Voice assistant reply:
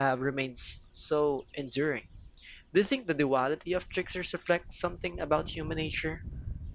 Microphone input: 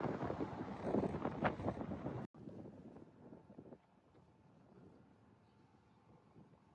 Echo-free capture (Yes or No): Yes